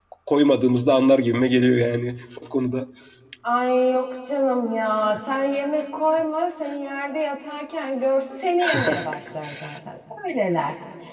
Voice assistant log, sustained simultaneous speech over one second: none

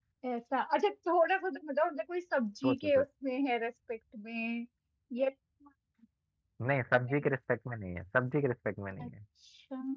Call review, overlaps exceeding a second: none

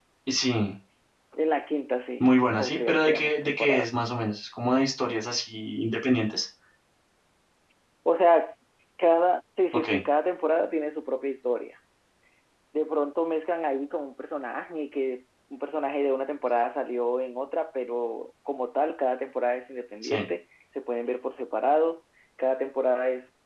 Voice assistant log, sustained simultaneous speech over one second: present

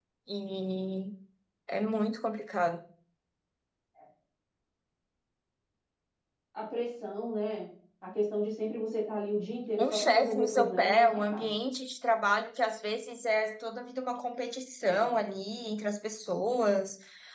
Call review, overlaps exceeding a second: present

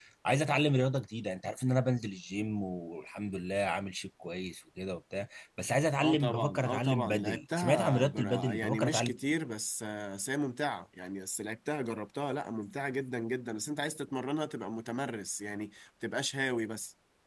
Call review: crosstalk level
present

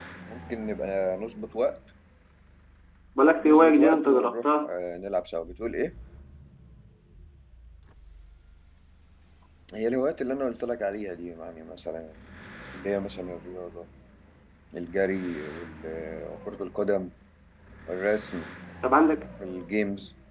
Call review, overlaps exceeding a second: present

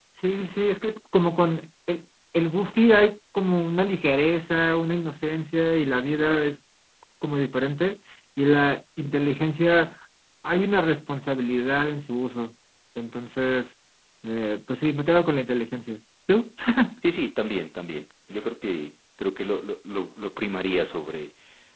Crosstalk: none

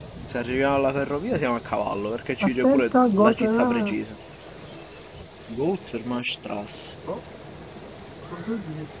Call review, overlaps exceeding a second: present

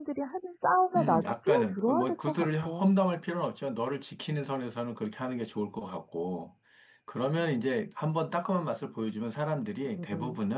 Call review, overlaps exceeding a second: present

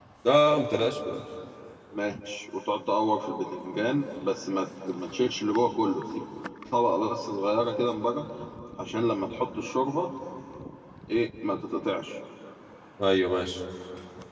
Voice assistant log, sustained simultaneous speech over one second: none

